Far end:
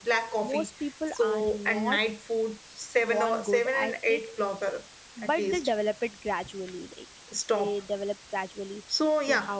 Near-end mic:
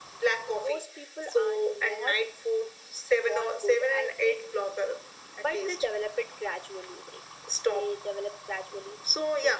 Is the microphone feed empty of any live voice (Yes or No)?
Yes